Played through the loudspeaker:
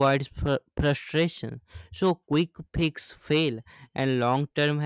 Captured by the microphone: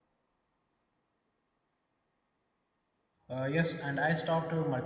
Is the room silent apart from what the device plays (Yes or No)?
No